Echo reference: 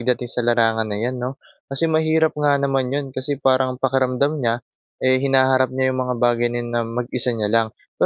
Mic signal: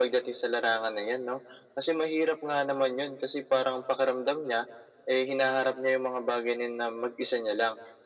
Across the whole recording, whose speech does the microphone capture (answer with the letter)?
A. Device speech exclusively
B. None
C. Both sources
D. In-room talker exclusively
A